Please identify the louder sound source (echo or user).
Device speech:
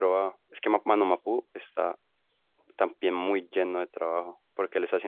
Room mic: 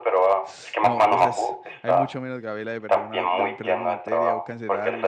echo